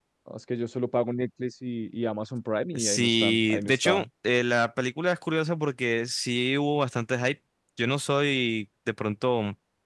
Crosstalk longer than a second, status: present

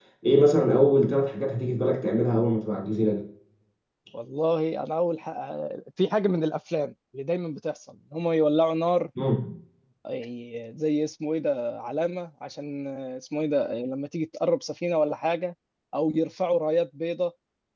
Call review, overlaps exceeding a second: none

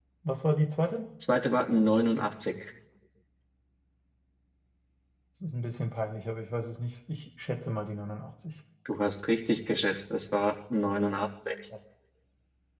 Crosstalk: none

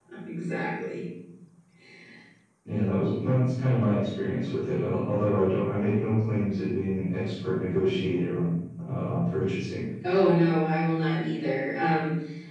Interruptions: none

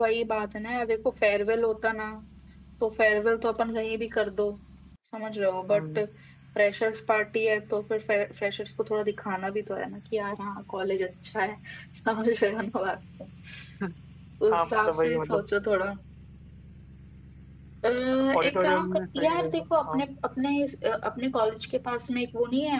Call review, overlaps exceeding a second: present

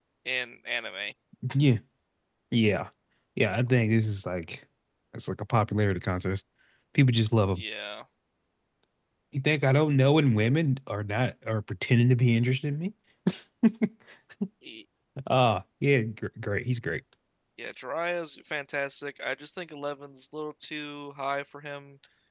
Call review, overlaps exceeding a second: none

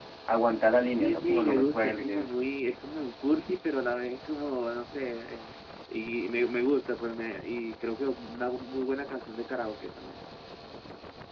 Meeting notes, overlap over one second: present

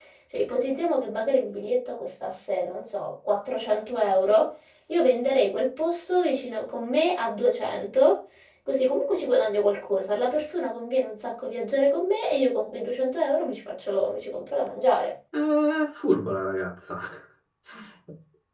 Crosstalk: none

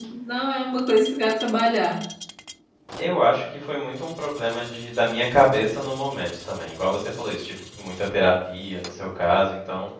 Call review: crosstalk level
none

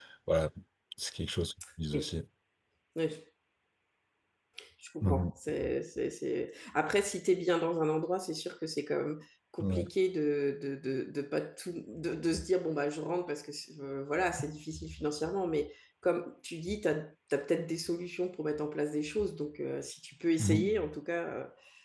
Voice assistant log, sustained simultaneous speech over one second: none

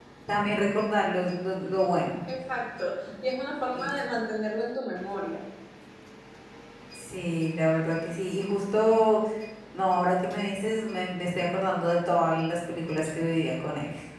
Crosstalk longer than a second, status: none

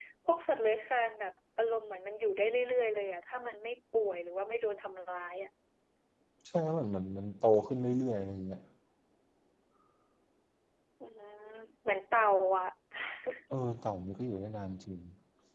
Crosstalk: none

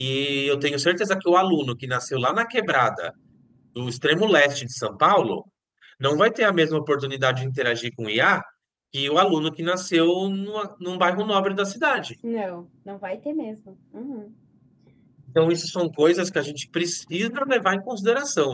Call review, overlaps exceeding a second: none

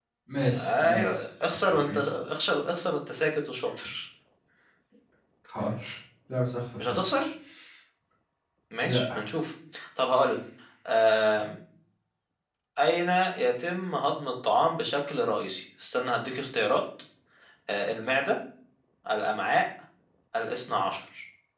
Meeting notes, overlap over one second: present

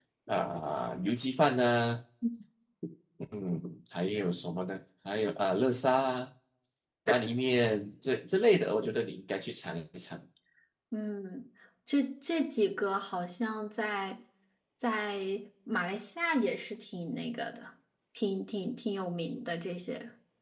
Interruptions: none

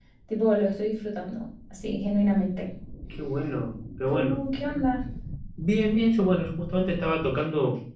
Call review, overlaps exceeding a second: none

